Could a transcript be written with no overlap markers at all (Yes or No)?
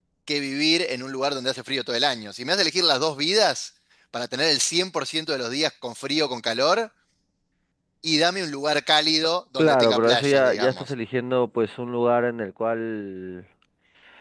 No